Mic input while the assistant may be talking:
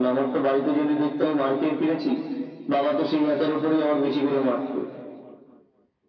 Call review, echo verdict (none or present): present